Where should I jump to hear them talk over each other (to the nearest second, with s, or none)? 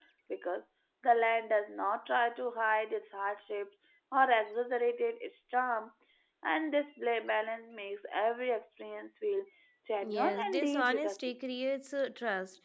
10 s